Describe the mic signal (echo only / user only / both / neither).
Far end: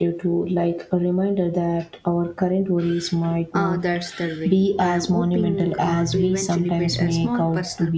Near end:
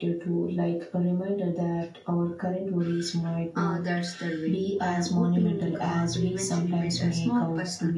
echo only